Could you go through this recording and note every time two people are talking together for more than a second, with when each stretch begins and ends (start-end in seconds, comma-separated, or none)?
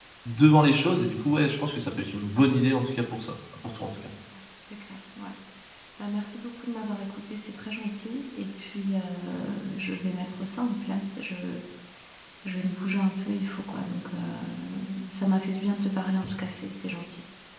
none